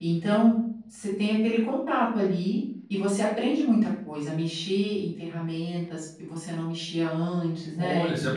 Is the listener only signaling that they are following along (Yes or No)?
No